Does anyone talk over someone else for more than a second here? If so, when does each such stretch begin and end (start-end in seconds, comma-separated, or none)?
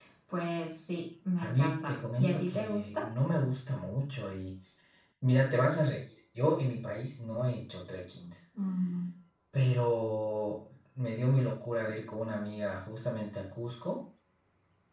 1.4-3.1